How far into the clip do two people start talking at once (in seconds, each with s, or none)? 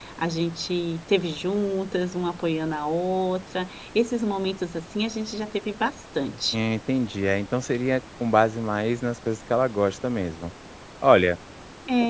none